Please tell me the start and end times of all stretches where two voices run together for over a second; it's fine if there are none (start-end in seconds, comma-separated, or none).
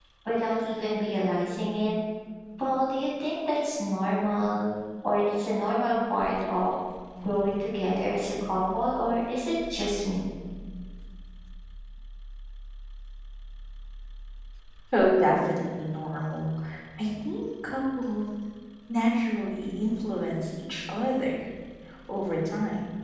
none